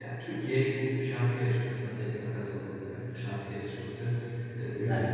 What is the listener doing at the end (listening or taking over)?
listening